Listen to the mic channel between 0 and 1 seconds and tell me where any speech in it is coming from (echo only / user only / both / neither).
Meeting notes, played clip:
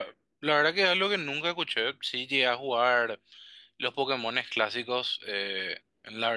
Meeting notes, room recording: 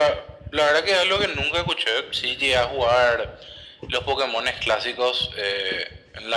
echo only